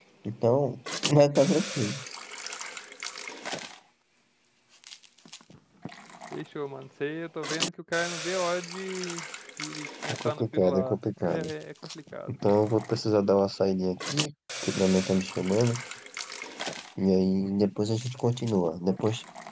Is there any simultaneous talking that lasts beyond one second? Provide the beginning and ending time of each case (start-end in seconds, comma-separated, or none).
10.1-11.5